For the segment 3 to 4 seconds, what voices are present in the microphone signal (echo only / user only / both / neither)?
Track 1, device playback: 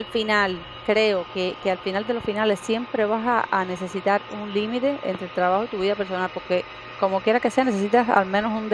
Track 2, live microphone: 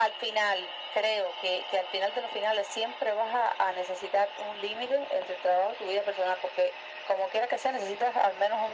echo only